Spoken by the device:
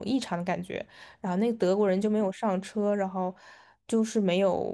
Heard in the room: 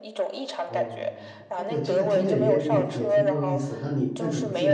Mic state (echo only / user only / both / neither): both